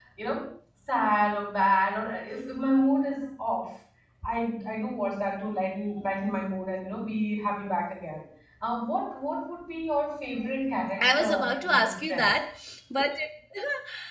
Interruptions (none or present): present